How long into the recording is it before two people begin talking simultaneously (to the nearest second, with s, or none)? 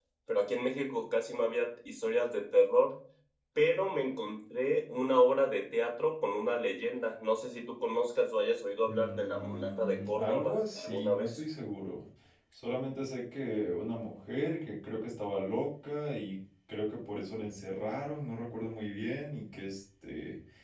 9 s